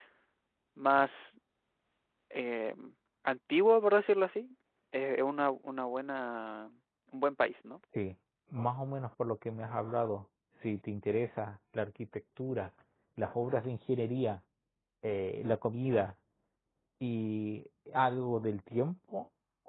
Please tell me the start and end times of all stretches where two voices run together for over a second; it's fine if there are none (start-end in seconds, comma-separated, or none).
none